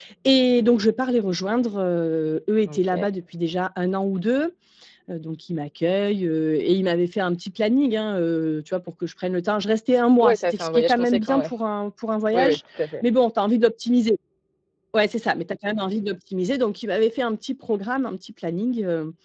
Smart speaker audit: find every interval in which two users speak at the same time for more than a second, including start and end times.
10.2-11.5

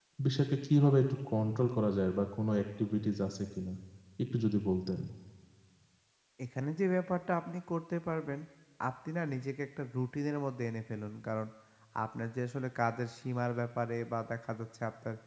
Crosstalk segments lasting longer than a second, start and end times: none

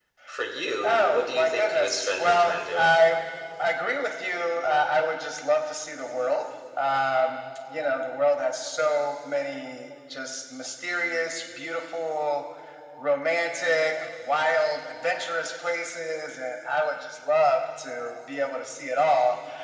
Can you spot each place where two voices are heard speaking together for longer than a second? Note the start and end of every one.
0.8-2.9

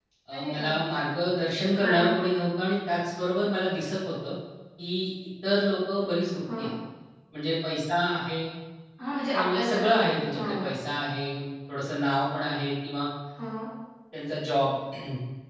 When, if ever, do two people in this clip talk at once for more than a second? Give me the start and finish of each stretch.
9.3-10.7

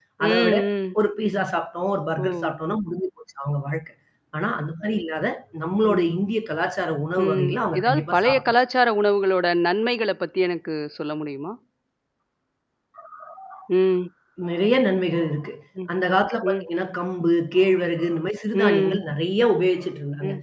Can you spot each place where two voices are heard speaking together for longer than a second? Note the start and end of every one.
7.2-8.5

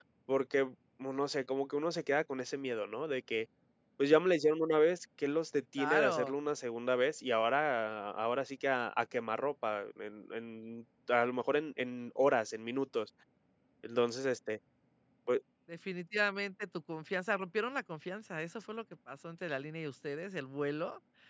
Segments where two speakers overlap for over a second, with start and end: none

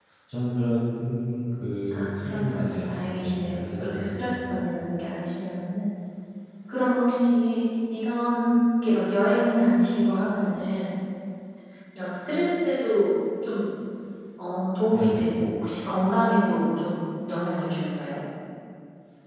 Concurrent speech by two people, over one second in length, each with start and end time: 1.9-4.5

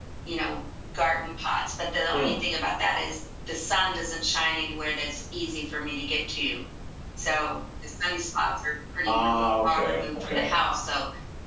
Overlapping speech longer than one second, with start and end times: 9.1-10.5

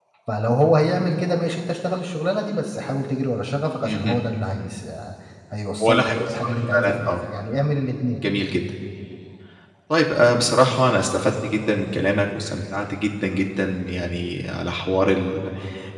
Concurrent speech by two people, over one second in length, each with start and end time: 5.8-7.2

